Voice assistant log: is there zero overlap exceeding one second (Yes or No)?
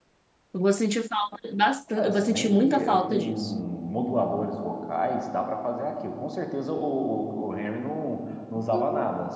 No